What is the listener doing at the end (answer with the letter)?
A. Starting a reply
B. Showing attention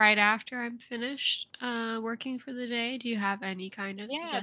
A